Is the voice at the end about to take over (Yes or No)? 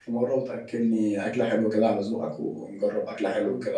Yes